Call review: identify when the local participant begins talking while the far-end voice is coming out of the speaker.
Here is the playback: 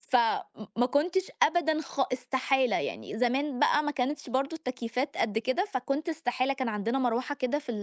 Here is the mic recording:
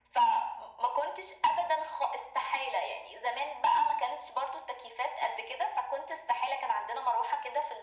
none

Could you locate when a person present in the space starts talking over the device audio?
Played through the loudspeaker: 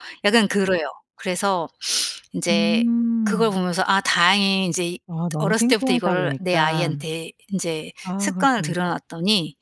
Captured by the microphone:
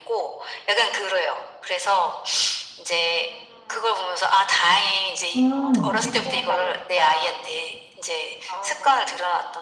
5.3 s

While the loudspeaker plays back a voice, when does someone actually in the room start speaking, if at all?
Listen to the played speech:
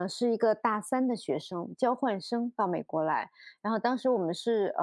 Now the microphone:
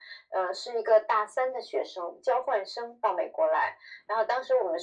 none

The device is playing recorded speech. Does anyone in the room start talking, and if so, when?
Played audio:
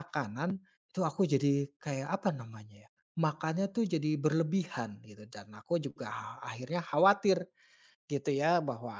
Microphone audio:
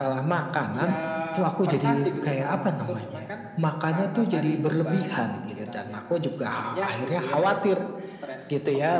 0.7 s

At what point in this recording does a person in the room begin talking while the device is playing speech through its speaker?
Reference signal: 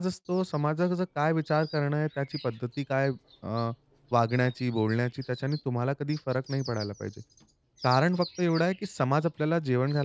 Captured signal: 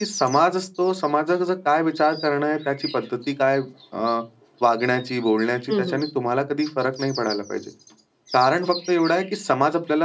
5.7 s

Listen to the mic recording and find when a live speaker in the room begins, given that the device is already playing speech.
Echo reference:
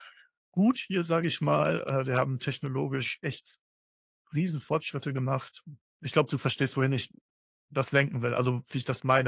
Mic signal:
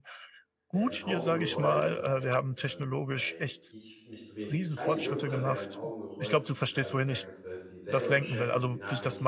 0.7 s

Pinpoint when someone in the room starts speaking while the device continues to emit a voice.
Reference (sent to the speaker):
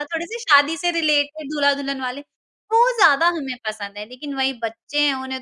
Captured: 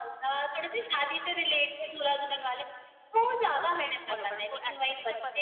3.5 s

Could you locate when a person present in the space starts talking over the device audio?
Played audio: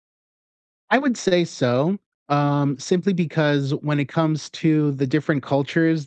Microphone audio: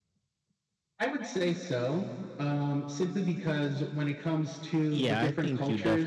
4.9 s

